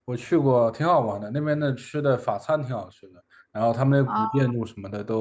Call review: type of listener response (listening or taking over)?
listening